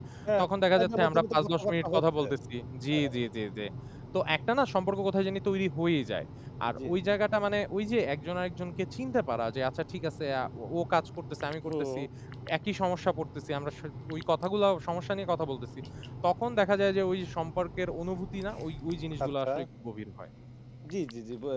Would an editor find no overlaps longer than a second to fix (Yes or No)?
No